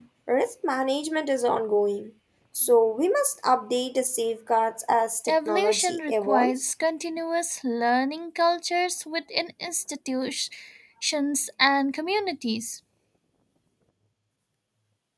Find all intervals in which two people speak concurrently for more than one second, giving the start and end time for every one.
5.3-6.7

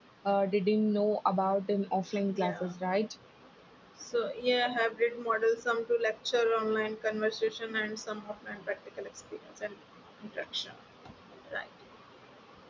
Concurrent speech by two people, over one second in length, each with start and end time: none

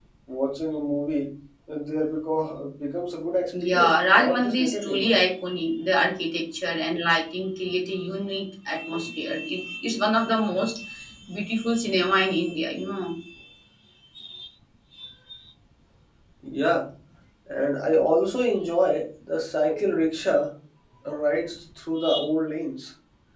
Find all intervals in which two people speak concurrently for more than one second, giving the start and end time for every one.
3.6-5.2

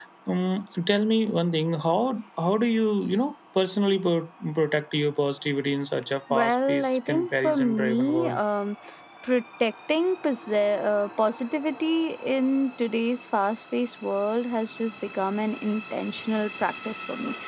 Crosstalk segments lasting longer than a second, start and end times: 6.3-8.4

